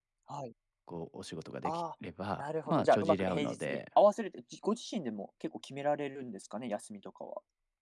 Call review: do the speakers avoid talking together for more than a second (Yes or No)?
No